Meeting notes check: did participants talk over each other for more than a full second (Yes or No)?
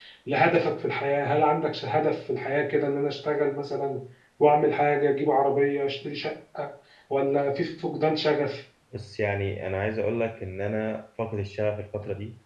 No